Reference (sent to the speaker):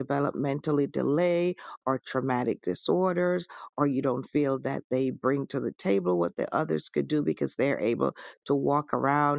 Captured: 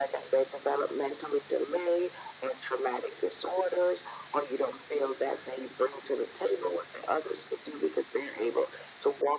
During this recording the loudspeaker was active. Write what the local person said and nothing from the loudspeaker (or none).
none